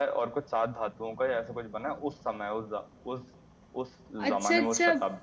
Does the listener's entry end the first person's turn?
Yes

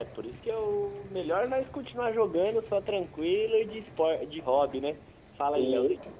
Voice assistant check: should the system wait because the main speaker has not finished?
No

